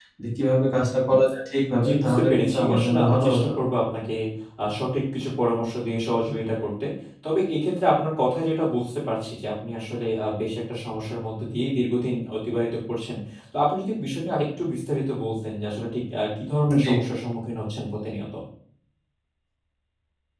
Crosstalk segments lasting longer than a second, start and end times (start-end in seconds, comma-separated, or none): 1.9-3.5